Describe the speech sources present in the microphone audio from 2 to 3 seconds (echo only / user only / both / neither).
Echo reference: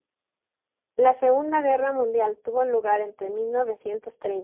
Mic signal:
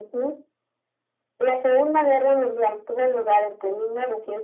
echo only